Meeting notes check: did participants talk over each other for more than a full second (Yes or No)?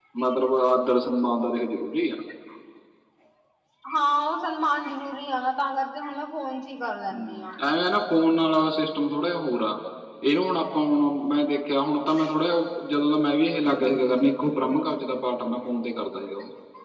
No